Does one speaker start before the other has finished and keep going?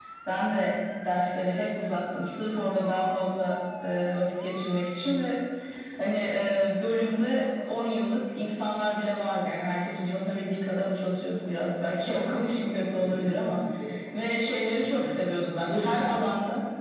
Yes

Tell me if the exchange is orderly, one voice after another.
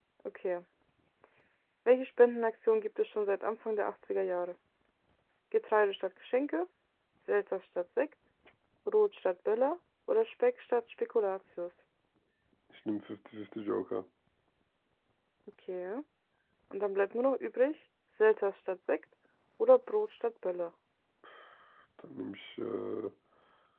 Yes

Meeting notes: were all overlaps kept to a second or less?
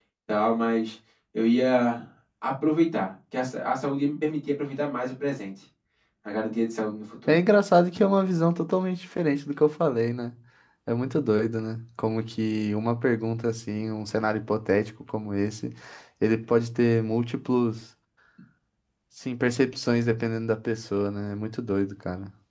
Yes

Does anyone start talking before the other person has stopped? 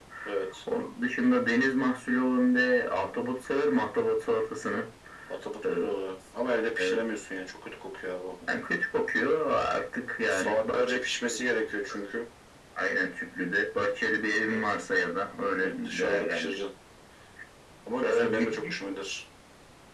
Yes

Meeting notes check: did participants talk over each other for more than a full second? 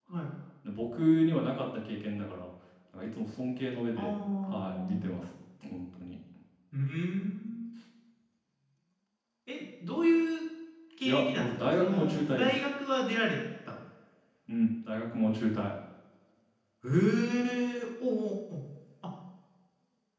Yes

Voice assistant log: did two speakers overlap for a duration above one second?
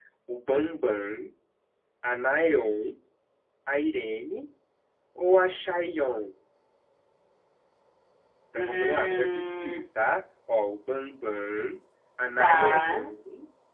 Yes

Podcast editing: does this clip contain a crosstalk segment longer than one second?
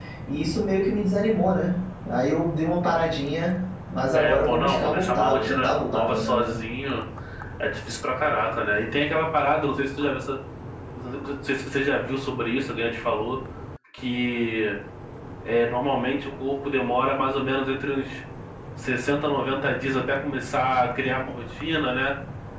Yes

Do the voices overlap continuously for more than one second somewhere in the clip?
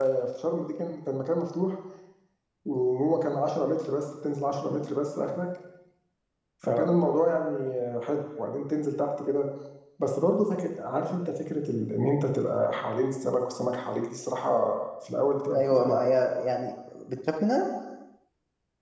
No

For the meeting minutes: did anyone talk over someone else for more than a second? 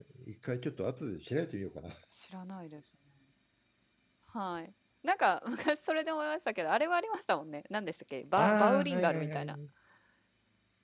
Yes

